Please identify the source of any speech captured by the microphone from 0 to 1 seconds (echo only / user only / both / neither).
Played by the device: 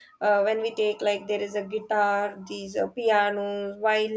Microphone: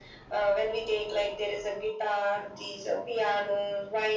echo only